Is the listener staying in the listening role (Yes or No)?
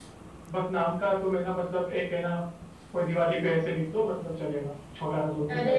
No